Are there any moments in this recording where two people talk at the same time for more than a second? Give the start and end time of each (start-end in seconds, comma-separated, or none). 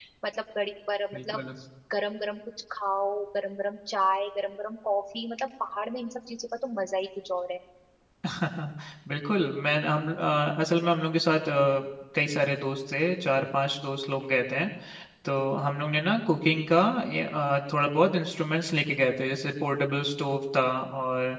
none